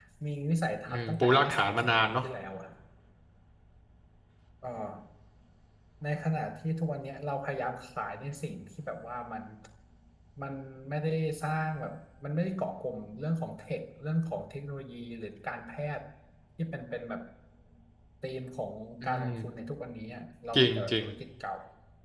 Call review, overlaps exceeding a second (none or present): present